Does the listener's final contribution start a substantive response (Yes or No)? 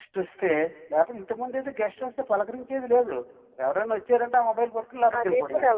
Yes